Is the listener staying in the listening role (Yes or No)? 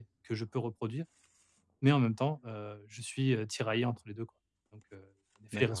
No